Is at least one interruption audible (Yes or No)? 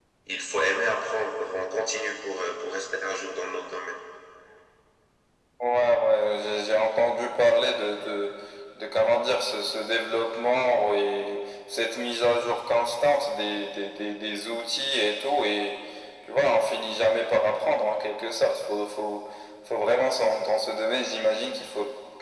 No